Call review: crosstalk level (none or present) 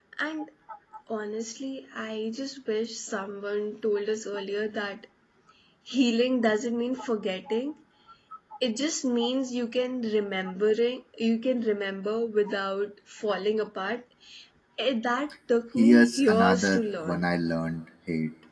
present